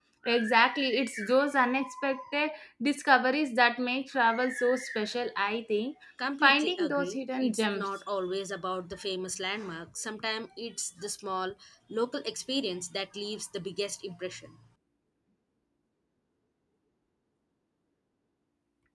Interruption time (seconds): 6.2 s

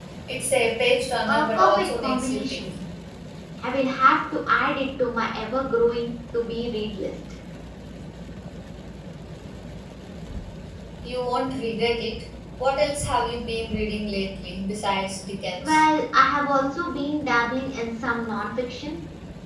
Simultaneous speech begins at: 1.3 s

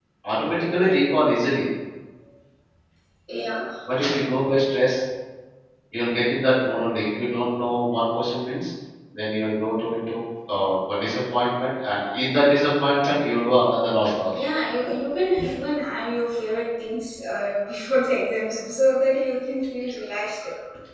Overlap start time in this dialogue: none

